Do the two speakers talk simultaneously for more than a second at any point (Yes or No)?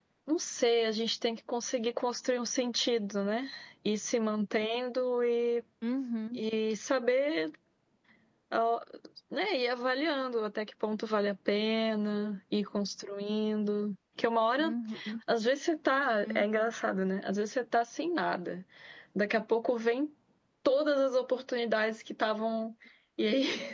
No